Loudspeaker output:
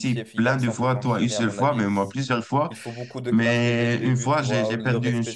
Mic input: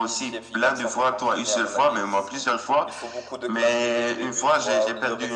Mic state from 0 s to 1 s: echo only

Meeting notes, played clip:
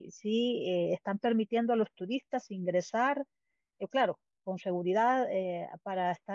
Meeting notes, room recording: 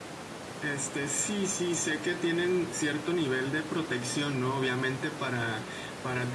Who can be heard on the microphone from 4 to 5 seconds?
user only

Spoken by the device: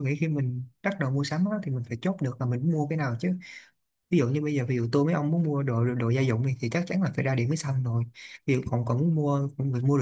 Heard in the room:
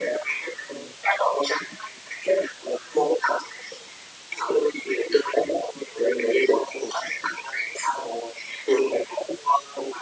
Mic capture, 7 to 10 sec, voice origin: echo only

